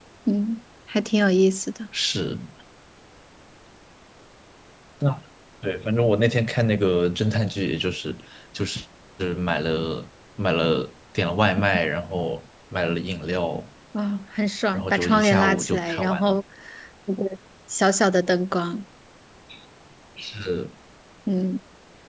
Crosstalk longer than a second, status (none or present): present